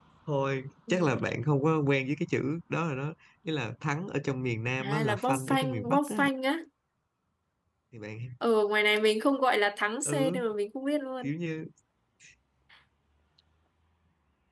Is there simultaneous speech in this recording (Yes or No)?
Yes